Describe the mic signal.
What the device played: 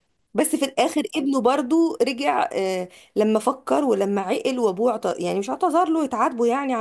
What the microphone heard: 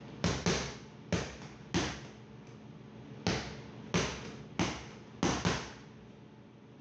neither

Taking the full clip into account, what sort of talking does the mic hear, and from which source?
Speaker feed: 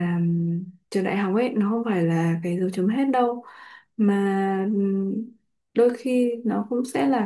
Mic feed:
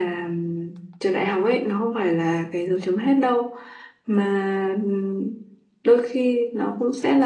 echo only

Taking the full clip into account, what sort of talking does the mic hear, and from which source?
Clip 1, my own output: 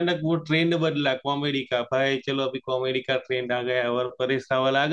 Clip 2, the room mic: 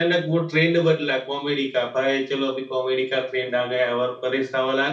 echo only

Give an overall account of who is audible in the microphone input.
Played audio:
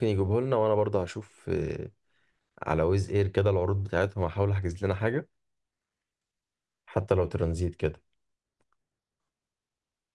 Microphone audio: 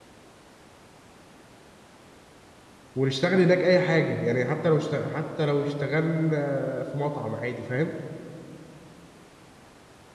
user only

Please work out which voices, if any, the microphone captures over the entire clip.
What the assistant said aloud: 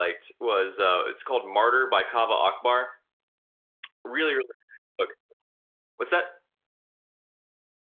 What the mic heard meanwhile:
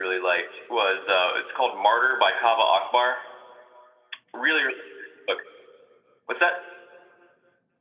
echo only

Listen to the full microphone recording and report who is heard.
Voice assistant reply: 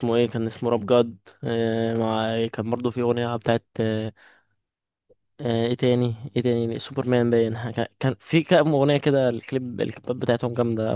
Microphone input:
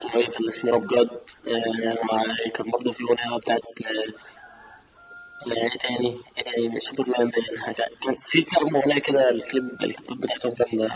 echo only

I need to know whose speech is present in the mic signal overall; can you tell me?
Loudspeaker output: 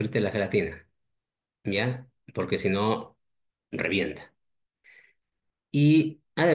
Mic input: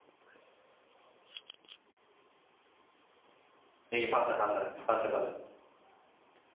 user only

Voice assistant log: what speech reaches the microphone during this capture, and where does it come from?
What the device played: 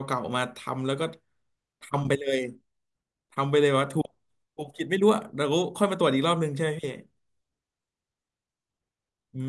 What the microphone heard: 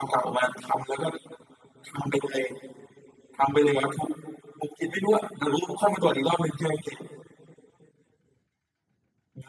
echo only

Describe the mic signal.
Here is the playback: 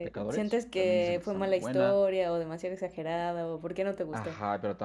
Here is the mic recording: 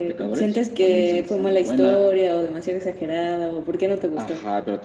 echo only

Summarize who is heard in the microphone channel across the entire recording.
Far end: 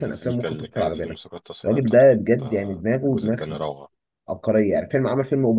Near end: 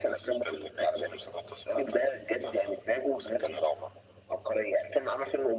echo only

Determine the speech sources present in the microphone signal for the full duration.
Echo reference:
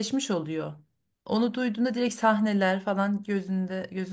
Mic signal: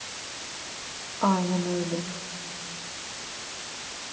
user only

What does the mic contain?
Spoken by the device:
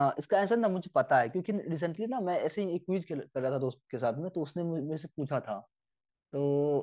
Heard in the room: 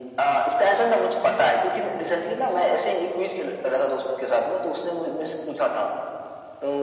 echo only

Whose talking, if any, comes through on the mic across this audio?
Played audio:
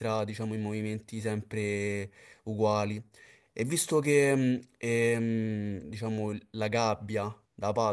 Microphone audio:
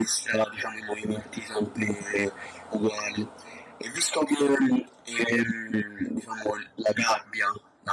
echo only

